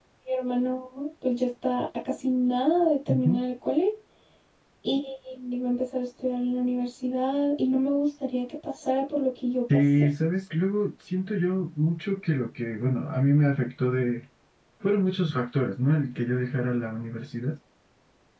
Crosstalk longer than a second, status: none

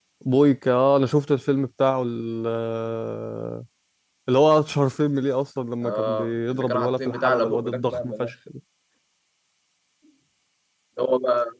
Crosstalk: present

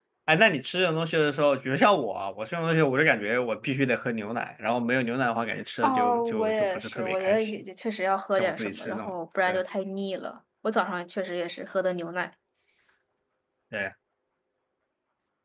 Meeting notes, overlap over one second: present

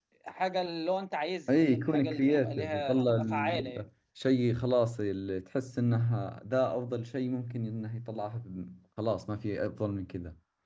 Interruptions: present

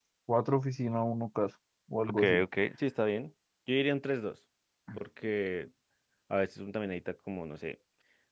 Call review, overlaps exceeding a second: none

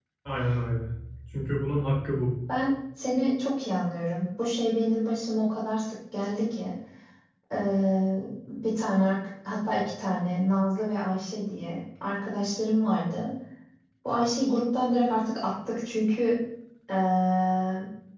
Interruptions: none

